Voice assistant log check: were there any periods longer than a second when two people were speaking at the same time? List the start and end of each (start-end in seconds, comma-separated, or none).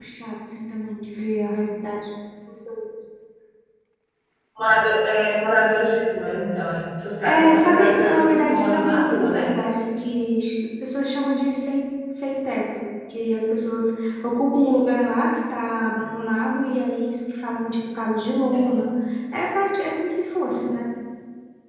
7.2-9.5